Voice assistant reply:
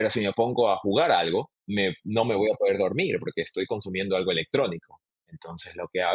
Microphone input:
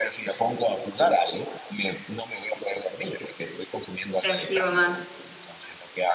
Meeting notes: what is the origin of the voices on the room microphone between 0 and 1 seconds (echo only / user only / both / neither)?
echo only